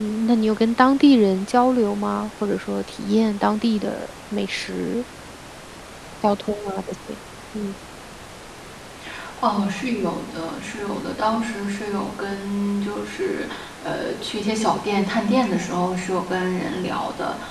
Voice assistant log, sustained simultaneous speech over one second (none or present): none